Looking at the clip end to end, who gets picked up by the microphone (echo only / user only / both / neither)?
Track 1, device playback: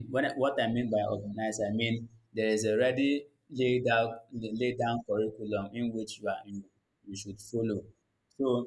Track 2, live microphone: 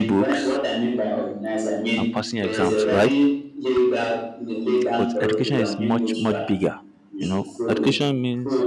both